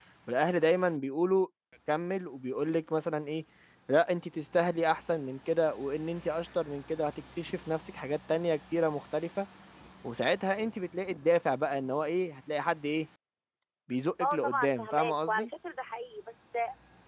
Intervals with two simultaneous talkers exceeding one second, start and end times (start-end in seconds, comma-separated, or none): 14.2-15.5